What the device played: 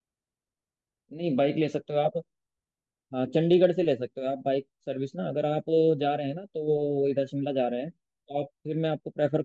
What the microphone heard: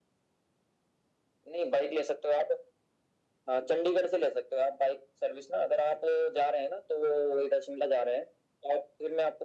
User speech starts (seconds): none

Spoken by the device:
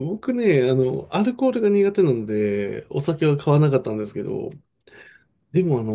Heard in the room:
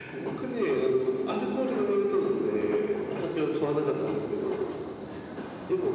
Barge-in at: none

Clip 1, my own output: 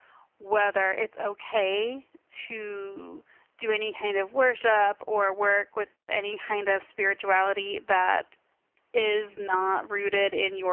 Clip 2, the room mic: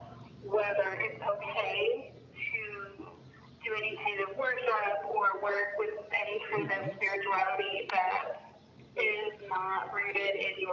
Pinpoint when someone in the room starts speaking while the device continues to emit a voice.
6 s

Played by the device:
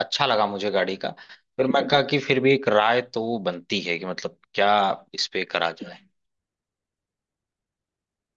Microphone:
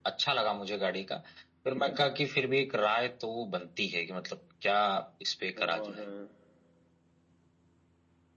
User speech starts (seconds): 6 s

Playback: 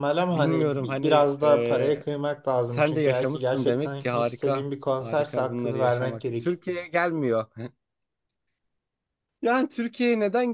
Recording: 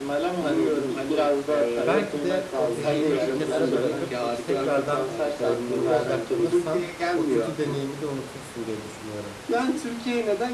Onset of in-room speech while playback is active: 2 s

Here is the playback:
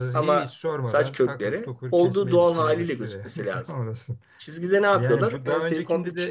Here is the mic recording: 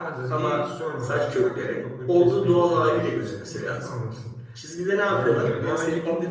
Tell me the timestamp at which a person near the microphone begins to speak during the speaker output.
5 s

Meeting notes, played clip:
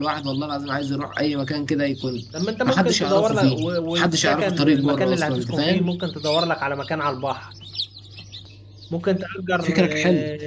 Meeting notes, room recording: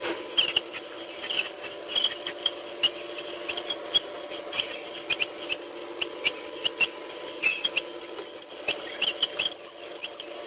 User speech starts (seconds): none

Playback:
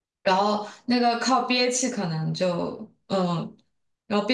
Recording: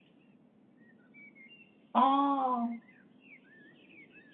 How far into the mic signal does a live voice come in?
2 s

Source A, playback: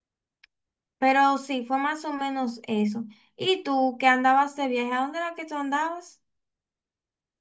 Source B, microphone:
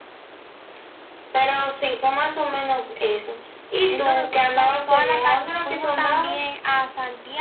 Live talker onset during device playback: 4 s

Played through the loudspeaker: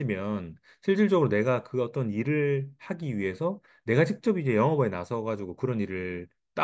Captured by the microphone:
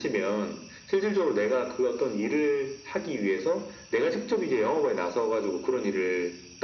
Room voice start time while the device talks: none

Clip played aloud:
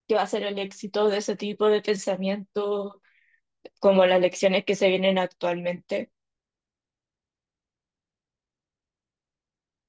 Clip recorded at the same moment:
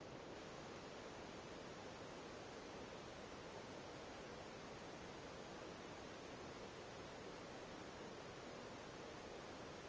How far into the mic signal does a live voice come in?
none

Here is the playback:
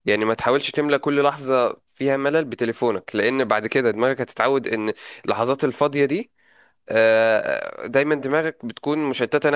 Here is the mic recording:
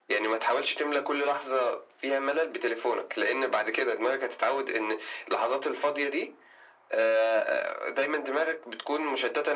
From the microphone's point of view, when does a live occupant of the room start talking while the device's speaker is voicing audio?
none

